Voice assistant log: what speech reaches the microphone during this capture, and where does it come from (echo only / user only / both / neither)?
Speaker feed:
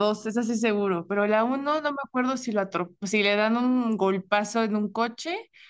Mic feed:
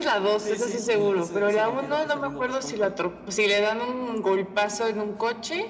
both